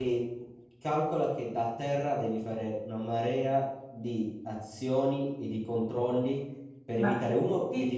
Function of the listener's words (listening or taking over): taking over